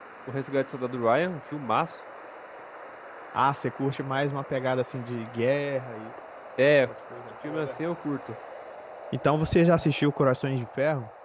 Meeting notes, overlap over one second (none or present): none